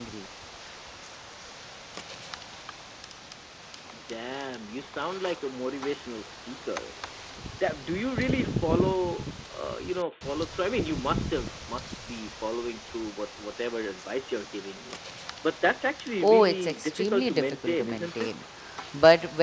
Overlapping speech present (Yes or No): Yes